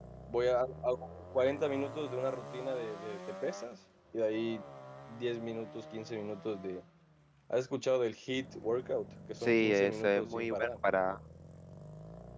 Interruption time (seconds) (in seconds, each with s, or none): 9.4 s